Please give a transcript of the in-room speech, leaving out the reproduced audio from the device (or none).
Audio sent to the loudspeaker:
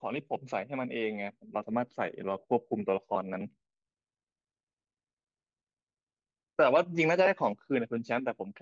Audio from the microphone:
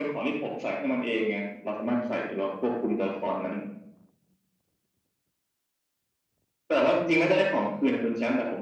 none